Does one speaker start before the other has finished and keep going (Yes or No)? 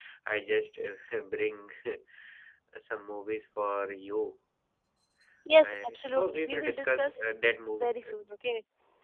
Yes